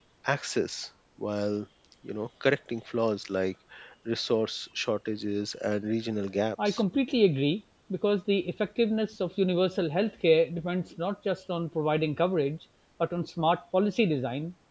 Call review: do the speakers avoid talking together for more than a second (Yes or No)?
Yes